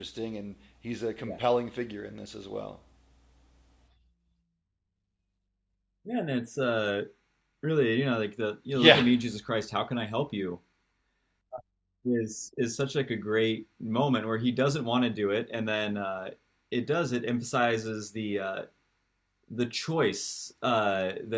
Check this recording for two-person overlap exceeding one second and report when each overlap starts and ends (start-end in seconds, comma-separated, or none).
none